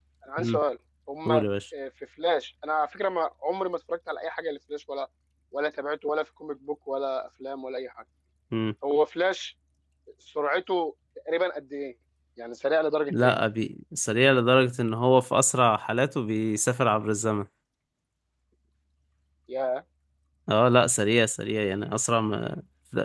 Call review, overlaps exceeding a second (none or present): none